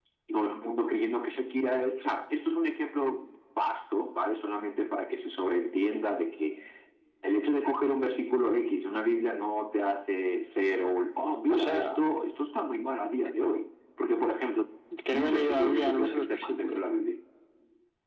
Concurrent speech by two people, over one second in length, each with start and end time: 15.1-16.8

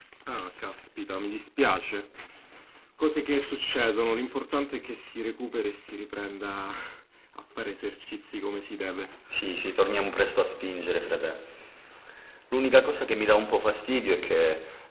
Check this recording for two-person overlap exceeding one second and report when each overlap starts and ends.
none

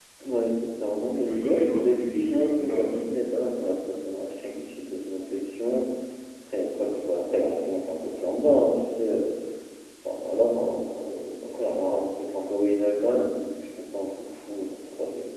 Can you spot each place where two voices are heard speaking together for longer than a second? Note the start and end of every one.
1.2-2.9

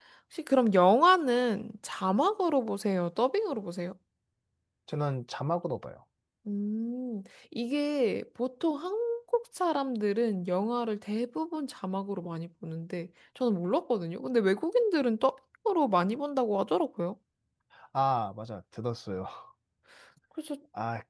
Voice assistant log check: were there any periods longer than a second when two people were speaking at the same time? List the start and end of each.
none

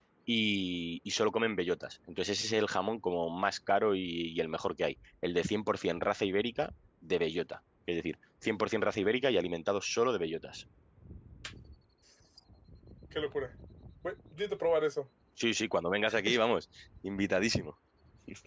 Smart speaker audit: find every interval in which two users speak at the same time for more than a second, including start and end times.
none

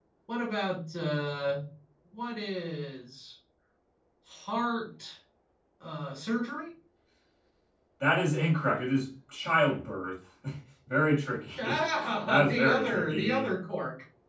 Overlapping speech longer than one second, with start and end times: 12.3-13.5

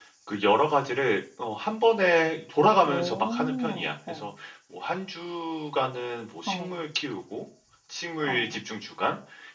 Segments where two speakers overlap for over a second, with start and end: 2.9-4.3

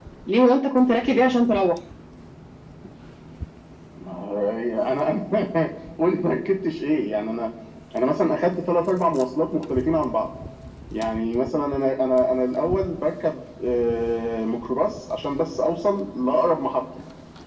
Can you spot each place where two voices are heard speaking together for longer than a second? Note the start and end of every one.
none

